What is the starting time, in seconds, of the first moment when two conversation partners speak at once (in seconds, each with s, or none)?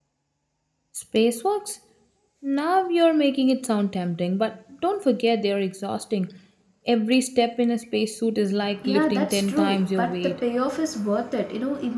8.8 s